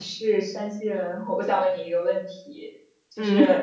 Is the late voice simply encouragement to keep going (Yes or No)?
Yes